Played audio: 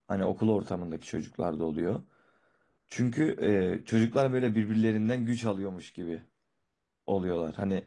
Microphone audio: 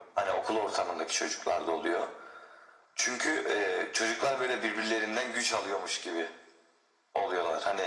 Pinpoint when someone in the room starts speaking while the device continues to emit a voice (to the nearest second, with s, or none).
none